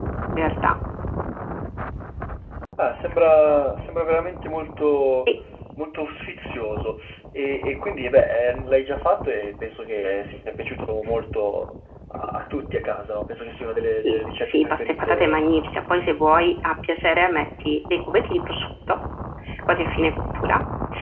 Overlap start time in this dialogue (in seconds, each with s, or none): 14.0 s